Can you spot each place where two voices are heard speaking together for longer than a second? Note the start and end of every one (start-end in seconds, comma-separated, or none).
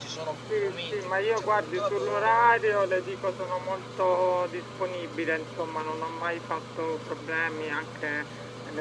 0.6-2.5